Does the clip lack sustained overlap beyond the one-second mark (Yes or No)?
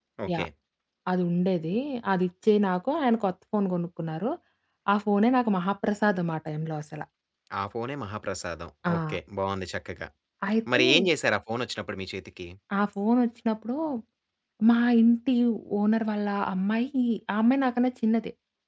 Yes